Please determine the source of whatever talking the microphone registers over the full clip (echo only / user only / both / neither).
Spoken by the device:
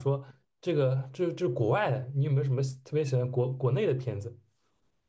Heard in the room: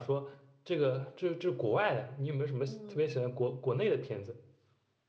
both